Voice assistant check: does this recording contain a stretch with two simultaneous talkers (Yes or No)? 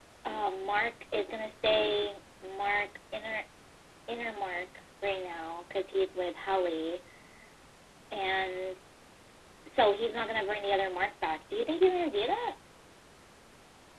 No